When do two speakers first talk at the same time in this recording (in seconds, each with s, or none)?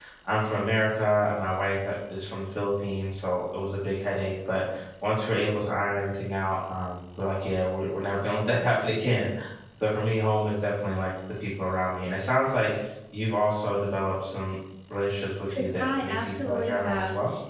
15.5 s